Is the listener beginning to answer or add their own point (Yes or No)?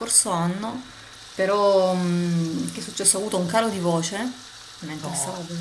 No